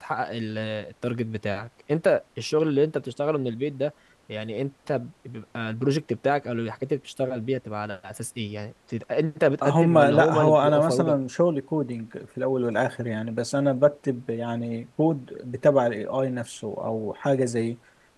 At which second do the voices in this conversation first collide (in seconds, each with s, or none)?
9.6 s